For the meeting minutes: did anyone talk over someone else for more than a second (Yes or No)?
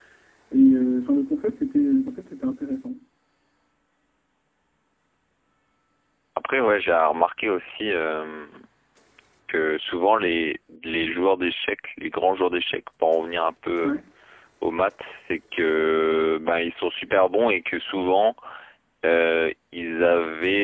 No